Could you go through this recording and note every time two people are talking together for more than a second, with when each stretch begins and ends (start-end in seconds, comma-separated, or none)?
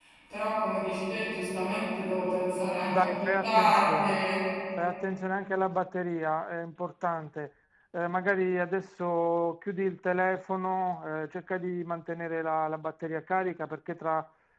2.8-4.2